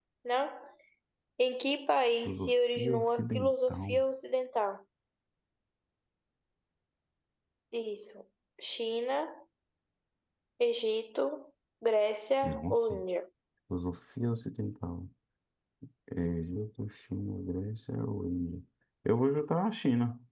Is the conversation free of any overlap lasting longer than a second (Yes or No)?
No